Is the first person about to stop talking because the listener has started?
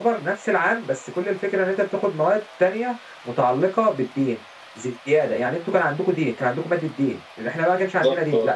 No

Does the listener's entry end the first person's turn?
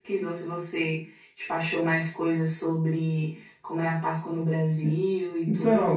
Yes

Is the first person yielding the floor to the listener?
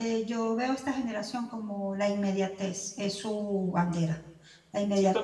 No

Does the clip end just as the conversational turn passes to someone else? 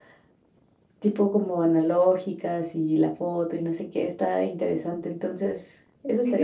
Yes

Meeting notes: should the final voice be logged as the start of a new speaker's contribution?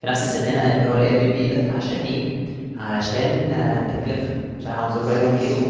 No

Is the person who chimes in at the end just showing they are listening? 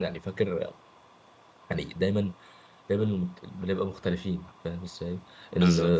Yes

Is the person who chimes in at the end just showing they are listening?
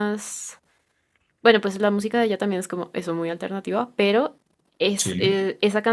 Yes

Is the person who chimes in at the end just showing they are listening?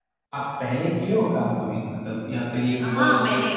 No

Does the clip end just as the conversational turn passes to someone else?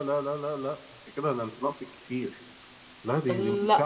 No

